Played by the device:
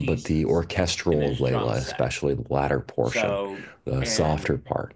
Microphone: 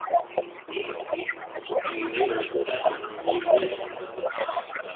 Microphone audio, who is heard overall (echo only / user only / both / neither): both